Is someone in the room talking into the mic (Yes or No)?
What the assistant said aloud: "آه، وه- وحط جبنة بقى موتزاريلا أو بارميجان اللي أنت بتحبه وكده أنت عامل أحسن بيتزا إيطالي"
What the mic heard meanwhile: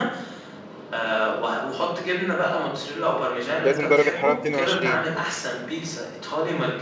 Yes